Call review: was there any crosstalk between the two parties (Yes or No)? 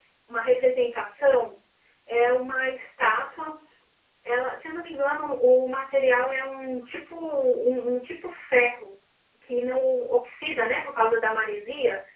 No